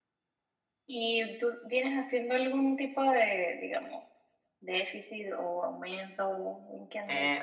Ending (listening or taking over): taking over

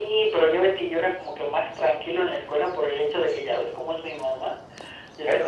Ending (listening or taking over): listening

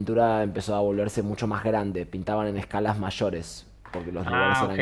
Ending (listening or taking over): taking over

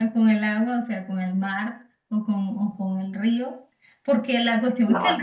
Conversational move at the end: listening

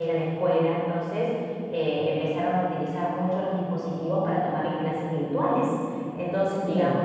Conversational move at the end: listening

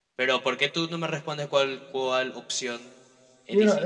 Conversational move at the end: taking over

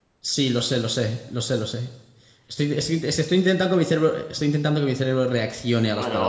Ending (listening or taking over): taking over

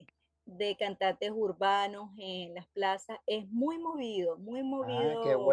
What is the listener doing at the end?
taking over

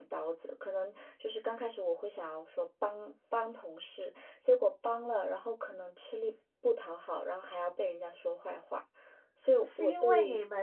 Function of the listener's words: taking over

